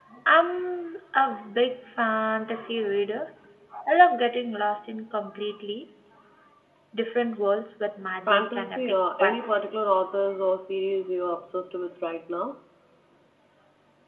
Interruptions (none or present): present